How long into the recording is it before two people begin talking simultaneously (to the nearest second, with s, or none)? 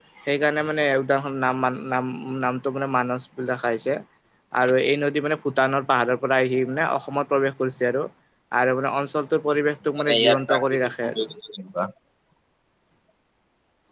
10 s